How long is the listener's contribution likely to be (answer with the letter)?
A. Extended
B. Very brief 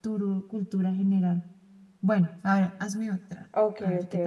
A